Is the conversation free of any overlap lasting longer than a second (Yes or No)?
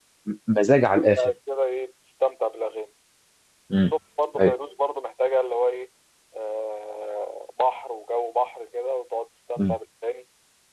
Yes